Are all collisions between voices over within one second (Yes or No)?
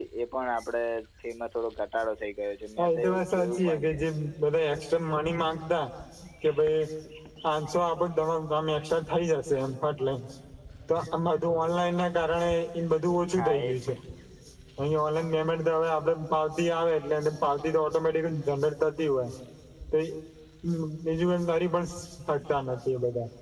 No